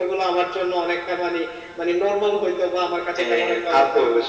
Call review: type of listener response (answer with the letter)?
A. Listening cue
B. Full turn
B